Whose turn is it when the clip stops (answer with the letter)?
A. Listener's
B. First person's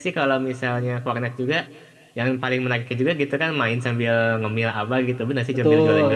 A